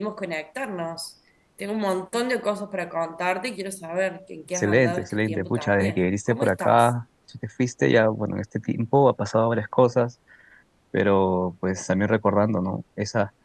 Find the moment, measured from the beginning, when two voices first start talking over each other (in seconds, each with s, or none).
4.5 s